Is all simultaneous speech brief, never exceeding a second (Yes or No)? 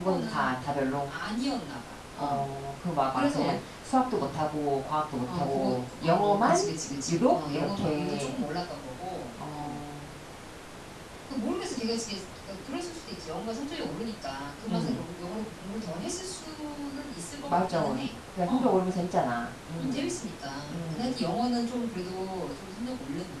No